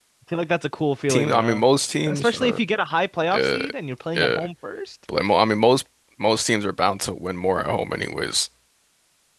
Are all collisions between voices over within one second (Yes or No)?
Yes